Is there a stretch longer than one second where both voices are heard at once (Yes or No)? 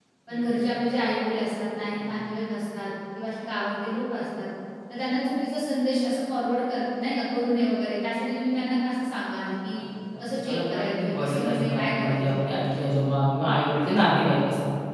Yes